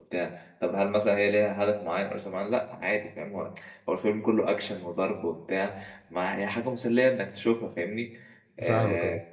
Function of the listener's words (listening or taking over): listening